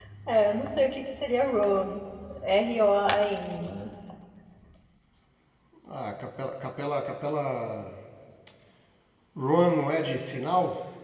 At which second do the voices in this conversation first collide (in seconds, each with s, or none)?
none